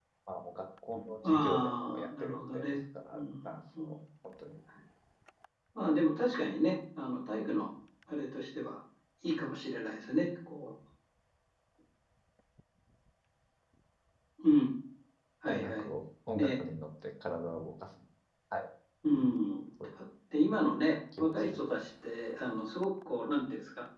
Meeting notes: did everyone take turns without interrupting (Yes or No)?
No